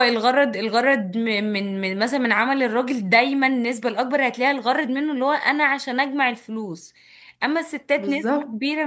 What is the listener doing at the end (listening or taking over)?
listening